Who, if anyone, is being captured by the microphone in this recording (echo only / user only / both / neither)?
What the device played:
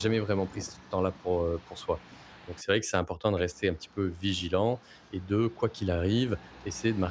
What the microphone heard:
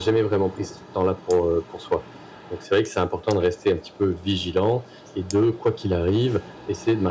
echo only